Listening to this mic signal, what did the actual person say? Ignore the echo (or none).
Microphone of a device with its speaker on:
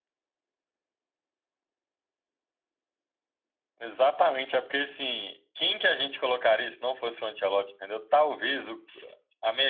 none